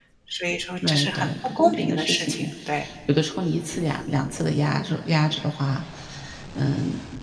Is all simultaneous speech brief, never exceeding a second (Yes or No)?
No